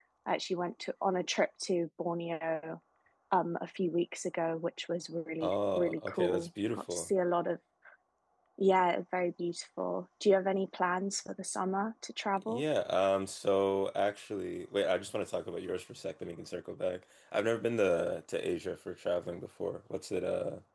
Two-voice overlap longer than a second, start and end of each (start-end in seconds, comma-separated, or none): 5.4-7.1